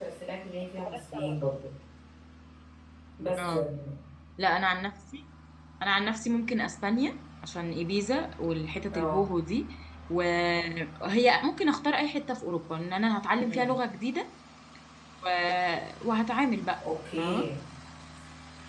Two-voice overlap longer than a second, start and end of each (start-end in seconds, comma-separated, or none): none